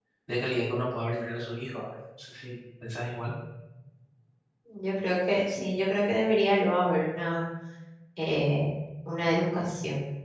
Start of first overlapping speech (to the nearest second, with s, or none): none